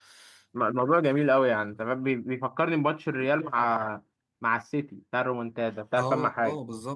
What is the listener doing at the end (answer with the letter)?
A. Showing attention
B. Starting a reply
B